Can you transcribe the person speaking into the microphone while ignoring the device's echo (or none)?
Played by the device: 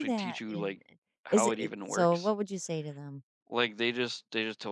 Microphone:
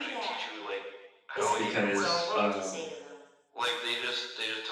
Because um,